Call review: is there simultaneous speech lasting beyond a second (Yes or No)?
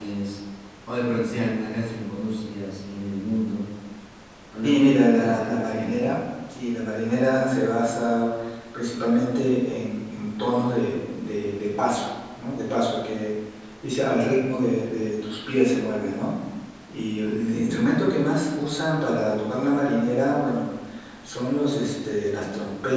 Yes